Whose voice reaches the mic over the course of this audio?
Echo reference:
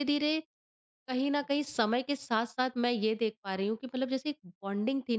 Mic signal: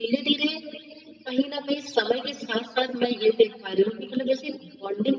echo only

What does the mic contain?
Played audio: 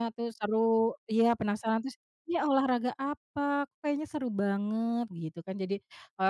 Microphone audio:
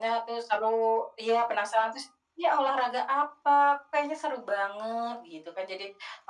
echo only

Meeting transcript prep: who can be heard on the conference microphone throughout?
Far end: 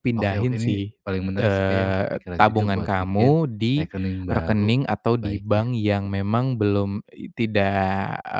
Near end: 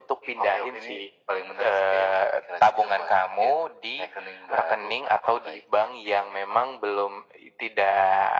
echo only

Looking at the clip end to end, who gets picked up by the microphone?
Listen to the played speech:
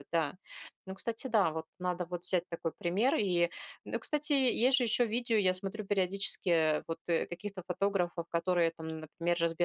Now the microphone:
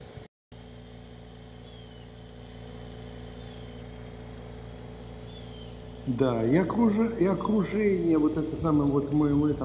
user only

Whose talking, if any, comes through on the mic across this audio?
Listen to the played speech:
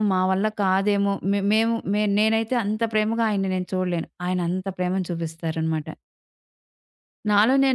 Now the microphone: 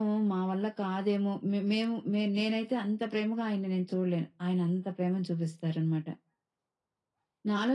echo only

